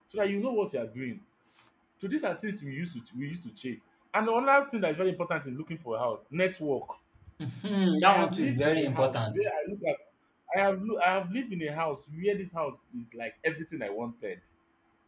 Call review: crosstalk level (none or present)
present